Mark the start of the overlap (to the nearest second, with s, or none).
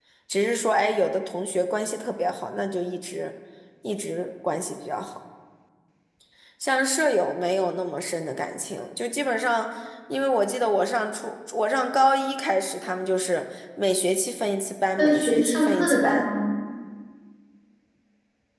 15 s